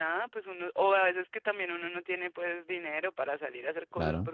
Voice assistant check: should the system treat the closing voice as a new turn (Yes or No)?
No